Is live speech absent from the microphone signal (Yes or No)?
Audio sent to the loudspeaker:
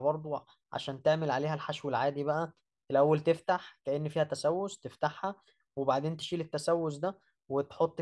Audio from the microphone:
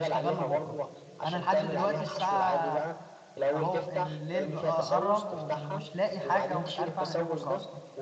No